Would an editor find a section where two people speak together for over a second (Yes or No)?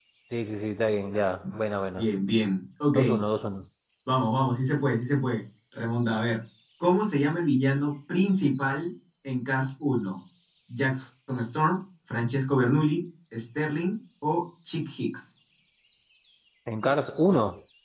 No